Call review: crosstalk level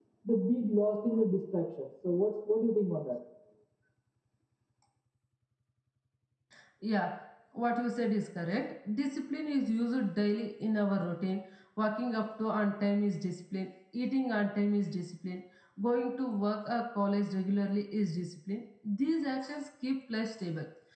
none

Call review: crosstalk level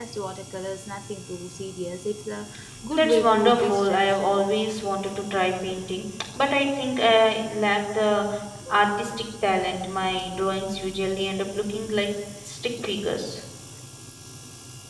present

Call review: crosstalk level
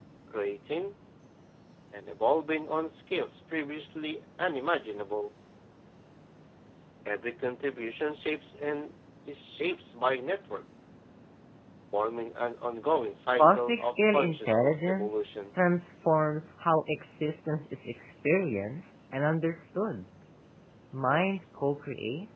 present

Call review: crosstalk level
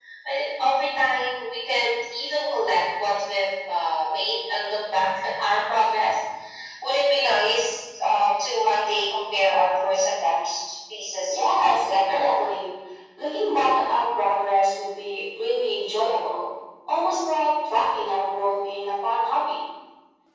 present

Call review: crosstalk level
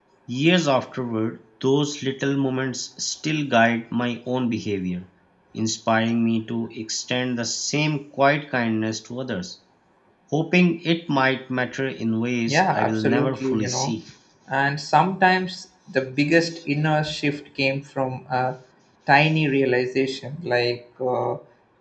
present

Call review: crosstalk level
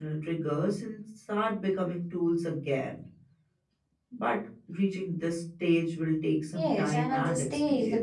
present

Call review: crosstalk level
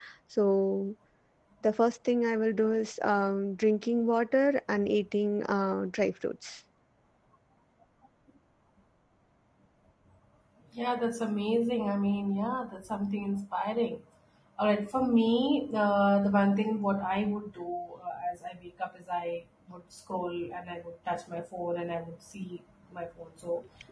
none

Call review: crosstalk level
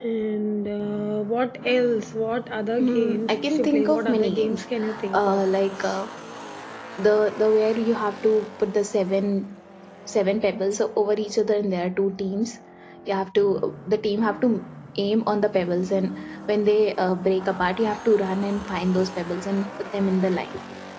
present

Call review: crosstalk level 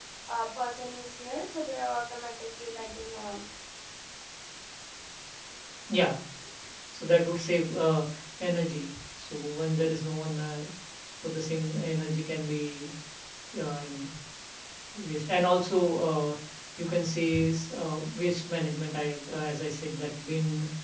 none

